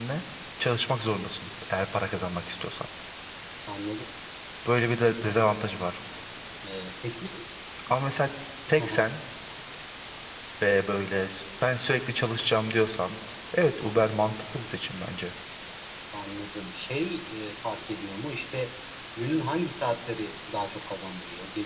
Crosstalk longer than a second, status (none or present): none